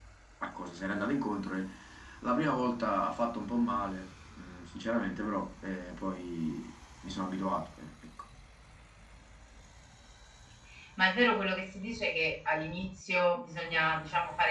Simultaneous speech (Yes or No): No